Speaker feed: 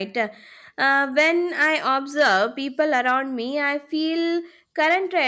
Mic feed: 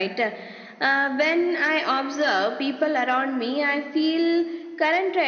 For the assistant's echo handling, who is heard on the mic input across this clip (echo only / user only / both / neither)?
echo only